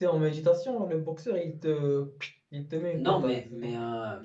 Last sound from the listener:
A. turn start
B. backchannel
A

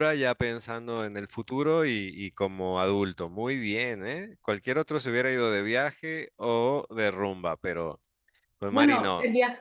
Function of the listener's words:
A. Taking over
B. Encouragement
A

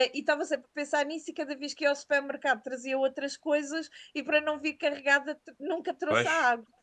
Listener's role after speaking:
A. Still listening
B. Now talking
B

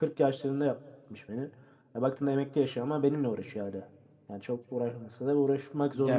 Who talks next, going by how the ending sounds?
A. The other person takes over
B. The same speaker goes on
A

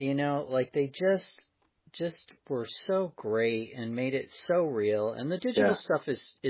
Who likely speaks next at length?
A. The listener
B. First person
B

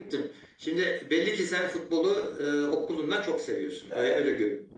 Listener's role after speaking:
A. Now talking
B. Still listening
A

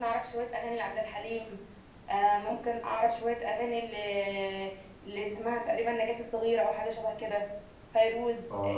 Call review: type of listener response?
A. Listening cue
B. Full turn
B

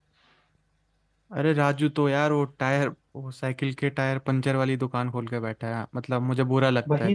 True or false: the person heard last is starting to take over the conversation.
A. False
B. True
B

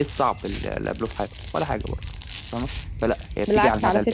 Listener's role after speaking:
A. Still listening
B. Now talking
B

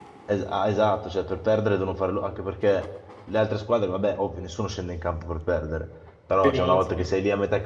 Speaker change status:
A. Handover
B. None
B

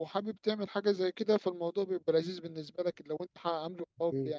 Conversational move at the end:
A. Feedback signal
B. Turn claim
A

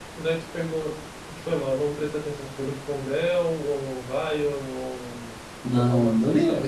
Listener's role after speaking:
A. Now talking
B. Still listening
A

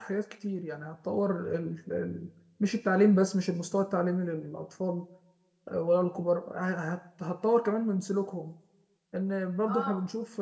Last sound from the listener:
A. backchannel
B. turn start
A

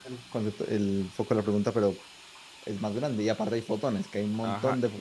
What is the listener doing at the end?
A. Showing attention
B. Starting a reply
B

